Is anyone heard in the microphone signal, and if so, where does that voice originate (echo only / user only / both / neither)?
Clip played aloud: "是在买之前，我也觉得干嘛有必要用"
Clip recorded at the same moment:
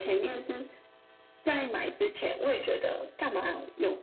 echo only